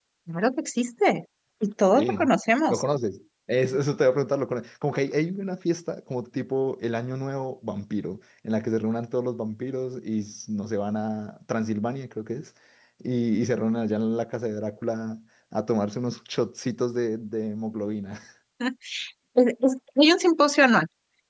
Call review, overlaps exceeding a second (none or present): none